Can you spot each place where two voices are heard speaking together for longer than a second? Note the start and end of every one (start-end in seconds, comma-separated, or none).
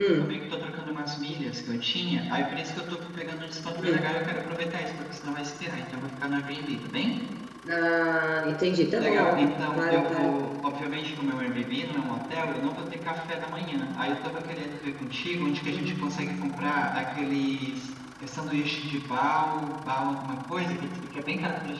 9.0-10.3, 15.7-17.0